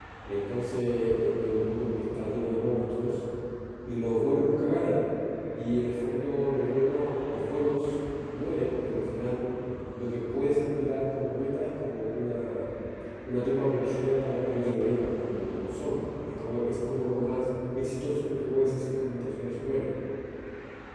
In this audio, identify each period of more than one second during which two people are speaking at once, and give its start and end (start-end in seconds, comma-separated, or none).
none